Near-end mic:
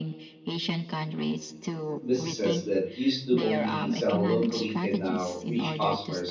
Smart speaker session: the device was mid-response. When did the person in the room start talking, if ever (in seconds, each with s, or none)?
2.0 s